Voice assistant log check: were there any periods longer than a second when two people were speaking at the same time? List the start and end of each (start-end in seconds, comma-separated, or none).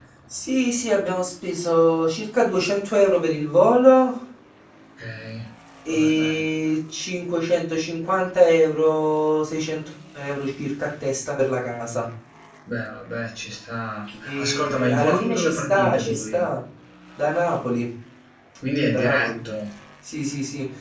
14.2-16.4